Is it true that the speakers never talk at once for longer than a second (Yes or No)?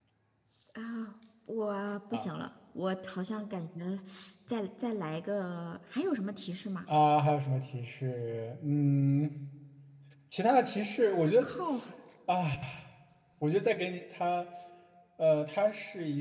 Yes